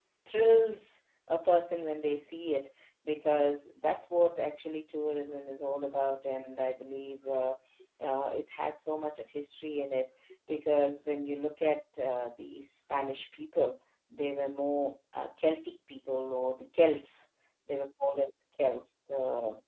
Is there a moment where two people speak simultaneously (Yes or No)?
No